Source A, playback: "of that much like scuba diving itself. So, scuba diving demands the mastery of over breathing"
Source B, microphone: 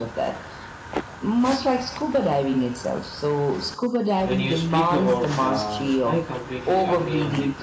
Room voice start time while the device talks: 4 s

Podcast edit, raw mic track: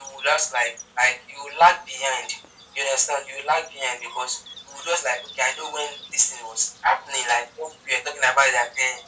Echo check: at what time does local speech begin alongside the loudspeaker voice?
none

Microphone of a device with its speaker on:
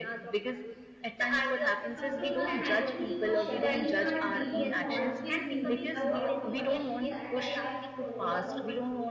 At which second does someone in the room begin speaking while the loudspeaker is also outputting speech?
2 s

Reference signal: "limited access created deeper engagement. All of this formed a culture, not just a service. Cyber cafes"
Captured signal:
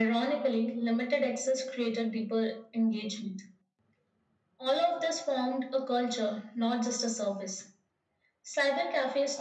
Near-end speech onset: none

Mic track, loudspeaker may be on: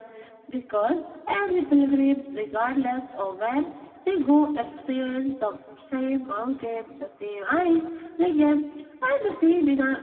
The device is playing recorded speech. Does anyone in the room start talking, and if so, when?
none

